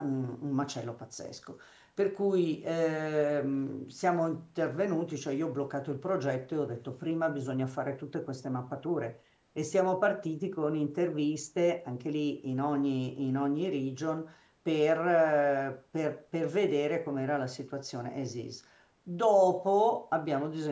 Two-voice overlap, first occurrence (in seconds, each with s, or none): none